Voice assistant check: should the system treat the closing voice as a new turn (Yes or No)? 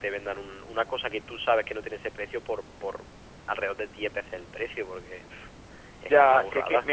Yes